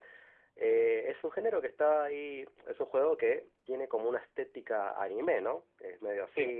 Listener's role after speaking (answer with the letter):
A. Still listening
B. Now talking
A